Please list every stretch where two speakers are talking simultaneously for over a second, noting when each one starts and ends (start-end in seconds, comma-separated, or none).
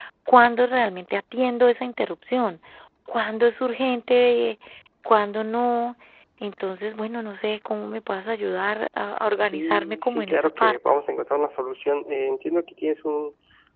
9.5-10.8